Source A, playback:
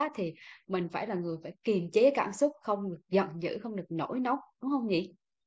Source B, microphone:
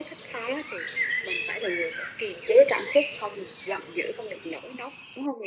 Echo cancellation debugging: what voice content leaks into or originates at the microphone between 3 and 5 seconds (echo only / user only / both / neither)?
echo only